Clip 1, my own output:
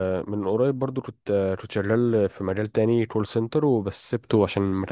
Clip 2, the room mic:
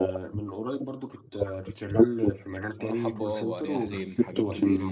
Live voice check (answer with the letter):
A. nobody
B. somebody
B